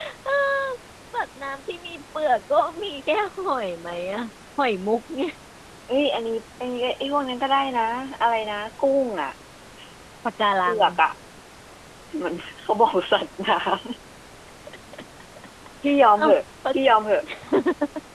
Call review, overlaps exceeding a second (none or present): none